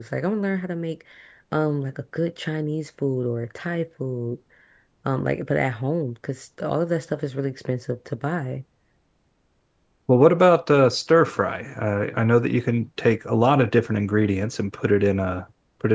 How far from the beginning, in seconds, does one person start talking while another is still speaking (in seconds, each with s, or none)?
none